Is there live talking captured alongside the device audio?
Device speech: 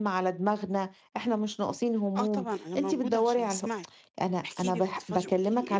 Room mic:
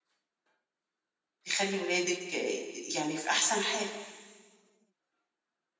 Yes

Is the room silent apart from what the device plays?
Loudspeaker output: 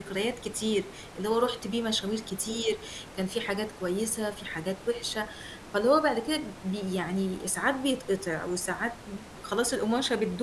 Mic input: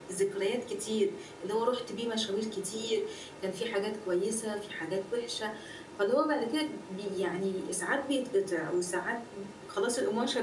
Yes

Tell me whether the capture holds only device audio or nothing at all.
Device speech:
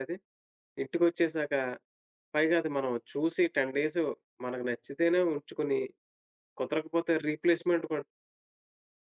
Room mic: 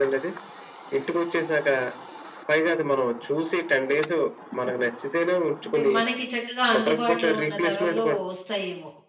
No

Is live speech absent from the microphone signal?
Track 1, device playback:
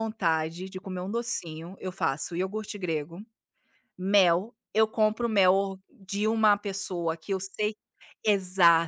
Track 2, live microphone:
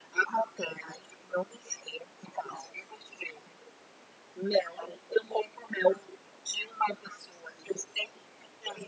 Yes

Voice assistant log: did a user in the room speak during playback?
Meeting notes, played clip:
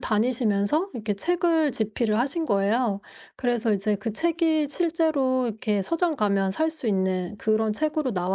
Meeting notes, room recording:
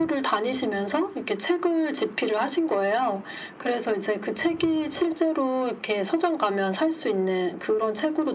No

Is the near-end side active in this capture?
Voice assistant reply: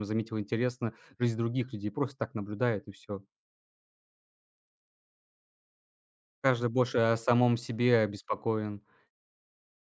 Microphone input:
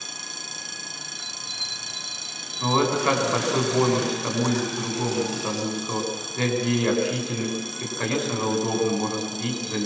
Yes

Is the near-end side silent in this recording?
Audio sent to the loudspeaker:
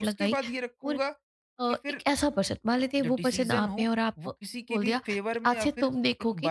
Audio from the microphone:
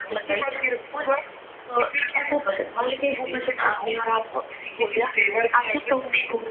Yes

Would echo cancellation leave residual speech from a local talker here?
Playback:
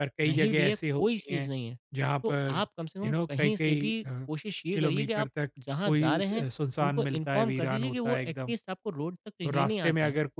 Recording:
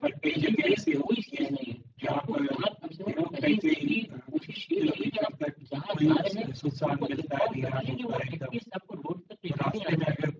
No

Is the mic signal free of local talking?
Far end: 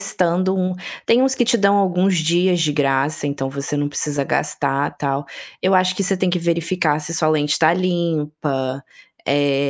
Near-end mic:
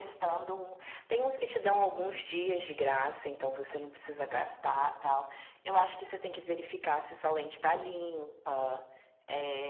Yes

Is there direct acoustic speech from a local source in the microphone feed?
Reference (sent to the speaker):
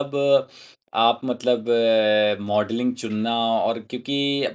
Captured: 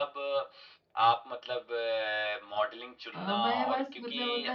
Yes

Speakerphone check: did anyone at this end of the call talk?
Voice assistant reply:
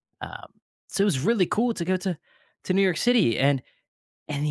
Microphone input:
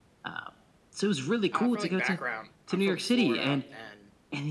Yes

